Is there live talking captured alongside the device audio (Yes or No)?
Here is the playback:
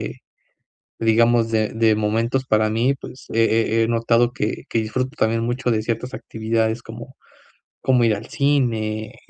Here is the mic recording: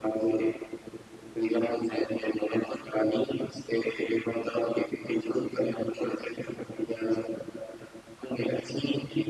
No